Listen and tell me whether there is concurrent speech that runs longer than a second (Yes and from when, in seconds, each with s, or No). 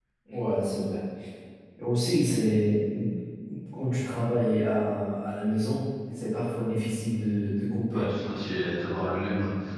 No